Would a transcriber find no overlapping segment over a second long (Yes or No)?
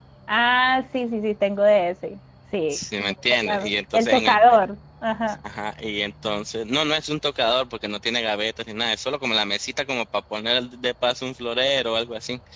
No